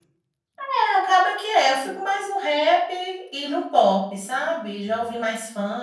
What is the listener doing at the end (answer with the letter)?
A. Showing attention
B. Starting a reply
A